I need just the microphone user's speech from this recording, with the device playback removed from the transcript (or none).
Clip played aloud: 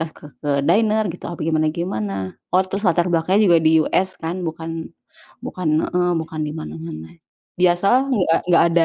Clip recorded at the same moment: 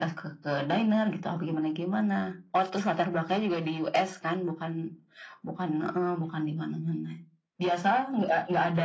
none